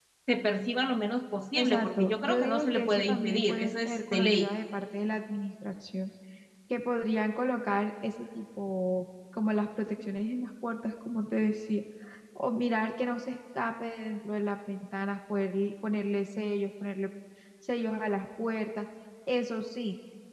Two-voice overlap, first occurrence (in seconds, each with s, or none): 1.6 s